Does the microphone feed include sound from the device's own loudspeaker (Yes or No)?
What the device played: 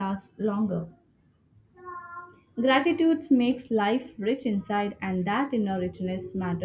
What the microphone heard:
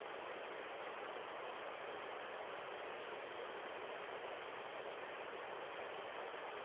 No